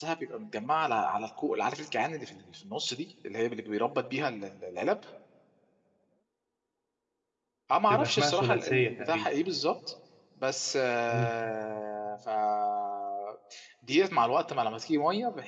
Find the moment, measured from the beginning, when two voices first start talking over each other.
7.9 s

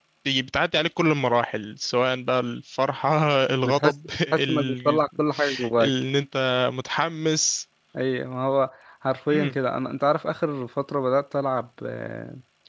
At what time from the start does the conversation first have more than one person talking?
3.6 s

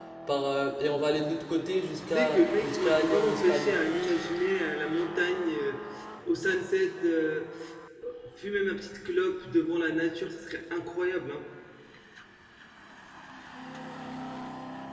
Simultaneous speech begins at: 2.1 s

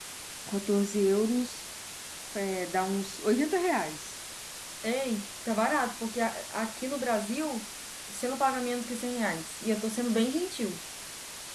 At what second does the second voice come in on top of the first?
none

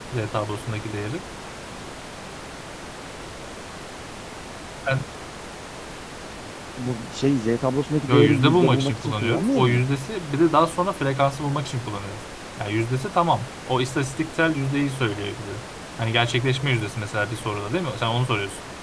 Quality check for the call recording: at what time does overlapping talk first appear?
8.1 s

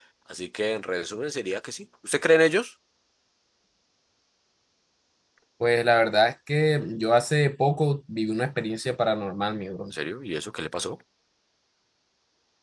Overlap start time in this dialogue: none

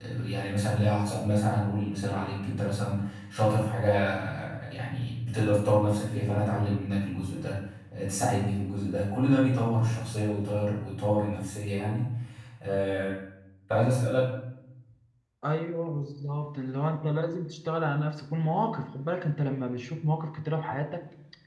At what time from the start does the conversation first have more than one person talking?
none

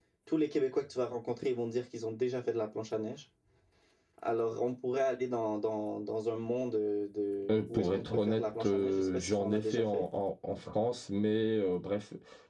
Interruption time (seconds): 7.5 s

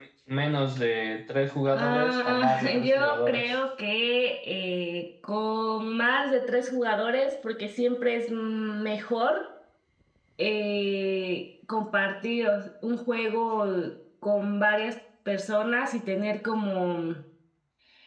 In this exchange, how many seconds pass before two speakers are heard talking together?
1.7 s

